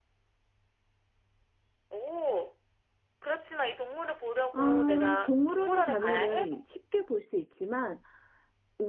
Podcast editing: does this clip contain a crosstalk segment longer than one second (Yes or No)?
Yes